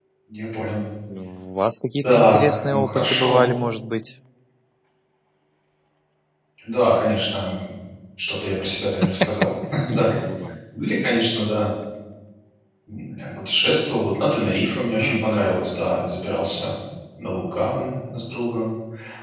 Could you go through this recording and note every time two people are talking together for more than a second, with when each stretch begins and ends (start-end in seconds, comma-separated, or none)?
2.0-3.5